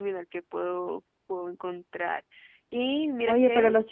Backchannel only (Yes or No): No